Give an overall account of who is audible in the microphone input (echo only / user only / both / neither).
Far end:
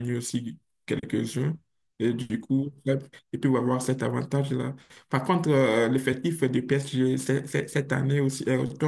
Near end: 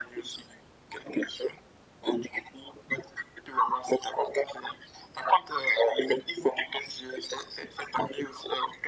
echo only